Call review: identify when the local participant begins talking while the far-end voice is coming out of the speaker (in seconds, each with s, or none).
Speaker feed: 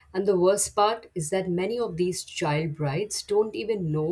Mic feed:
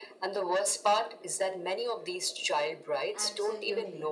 3.1 s